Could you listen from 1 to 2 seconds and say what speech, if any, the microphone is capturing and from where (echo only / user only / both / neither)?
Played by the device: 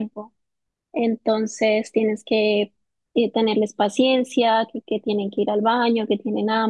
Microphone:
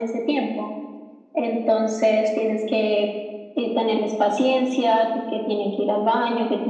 echo only